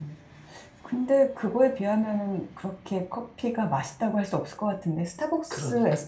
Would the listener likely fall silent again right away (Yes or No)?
Yes